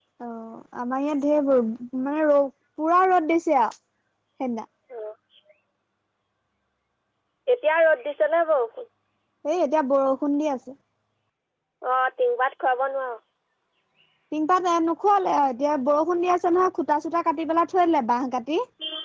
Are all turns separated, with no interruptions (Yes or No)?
Yes